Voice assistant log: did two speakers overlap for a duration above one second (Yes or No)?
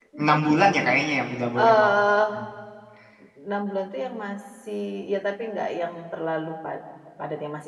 No